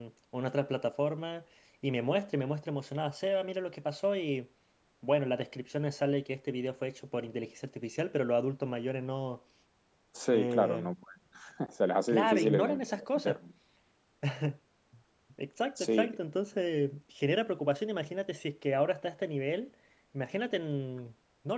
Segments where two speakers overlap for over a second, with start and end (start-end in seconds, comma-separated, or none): 12.1-13.4